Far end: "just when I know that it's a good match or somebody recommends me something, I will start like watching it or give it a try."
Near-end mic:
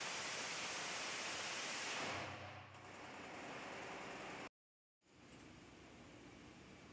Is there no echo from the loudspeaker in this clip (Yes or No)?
Yes